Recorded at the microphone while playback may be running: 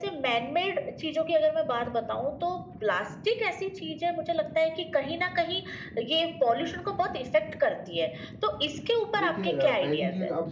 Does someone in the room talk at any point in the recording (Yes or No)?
Yes